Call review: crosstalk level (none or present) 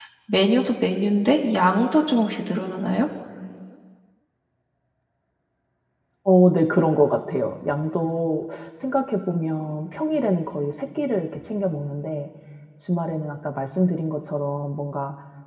none